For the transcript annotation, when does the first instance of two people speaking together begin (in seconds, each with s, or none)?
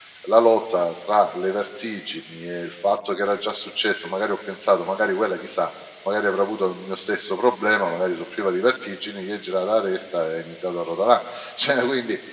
none